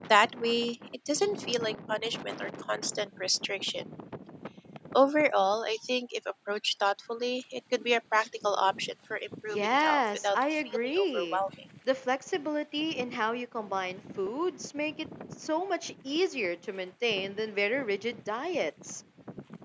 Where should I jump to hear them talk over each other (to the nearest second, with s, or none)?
10 s